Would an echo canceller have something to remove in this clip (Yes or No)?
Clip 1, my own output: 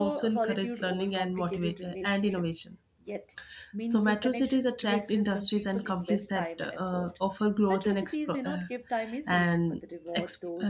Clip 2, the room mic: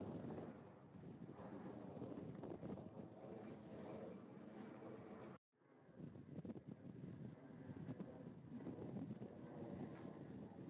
No